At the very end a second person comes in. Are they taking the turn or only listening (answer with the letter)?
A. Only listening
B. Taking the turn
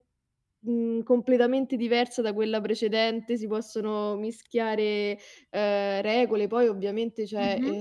A